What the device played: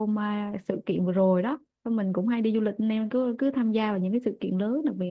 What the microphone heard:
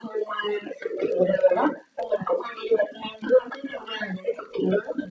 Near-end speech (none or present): none